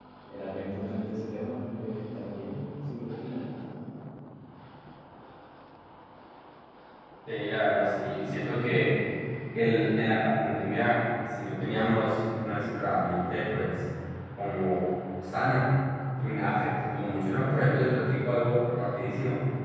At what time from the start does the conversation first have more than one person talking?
none

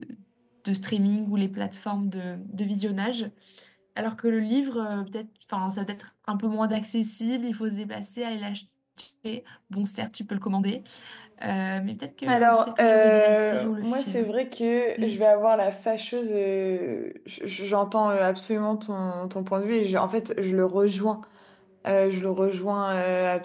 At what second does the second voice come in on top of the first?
12.3 s

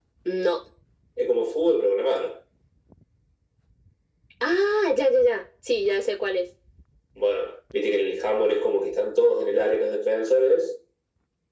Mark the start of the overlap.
none

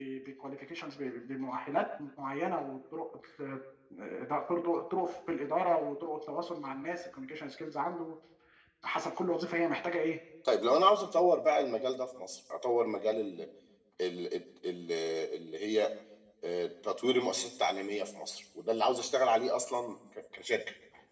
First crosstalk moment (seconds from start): none

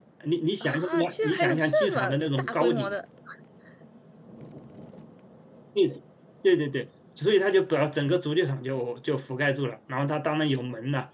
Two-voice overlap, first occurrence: 0.6 s

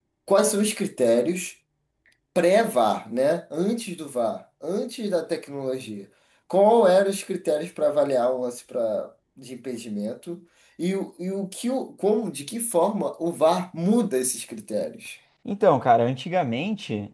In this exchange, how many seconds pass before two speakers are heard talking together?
none

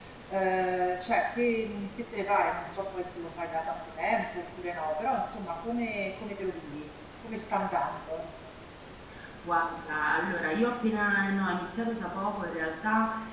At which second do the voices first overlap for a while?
none

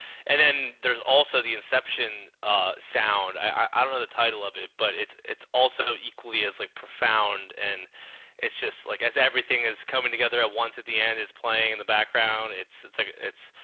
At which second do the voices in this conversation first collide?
none

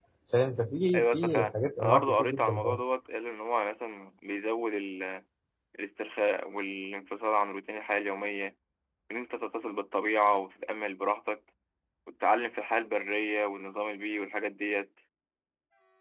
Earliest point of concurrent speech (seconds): 0.9 s

